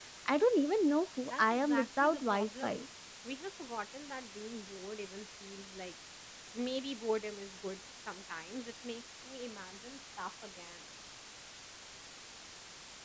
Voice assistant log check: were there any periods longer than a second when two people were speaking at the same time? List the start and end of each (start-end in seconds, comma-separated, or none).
1.3-2.8